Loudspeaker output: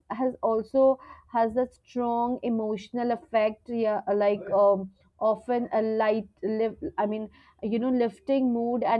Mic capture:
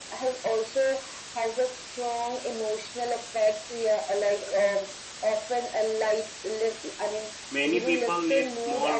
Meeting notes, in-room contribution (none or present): present